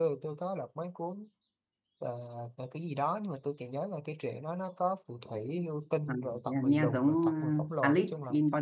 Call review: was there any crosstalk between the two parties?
Yes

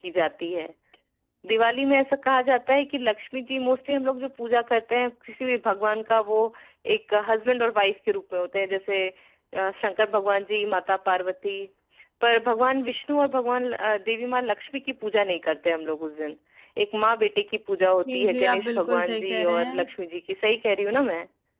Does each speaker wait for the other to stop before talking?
No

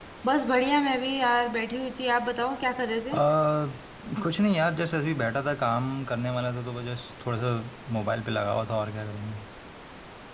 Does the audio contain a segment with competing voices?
No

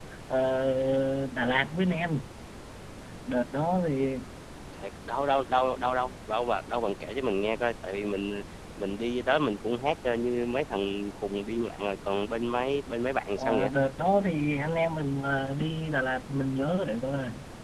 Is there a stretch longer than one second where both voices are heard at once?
No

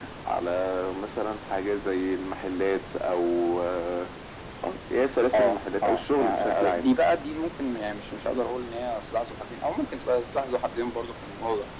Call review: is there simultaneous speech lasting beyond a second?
Yes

